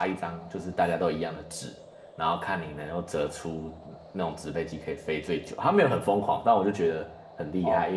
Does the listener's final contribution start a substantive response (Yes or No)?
No